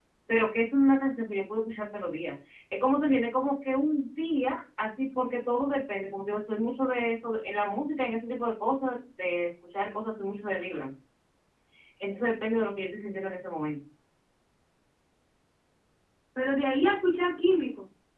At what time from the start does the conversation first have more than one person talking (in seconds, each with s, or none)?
none